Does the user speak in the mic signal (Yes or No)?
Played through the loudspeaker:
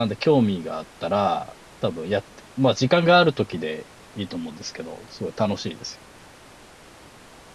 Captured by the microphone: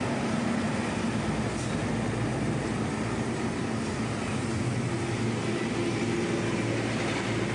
No